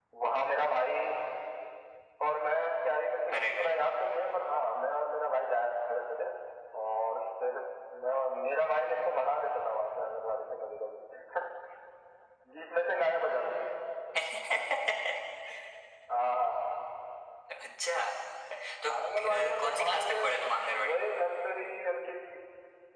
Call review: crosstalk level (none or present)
present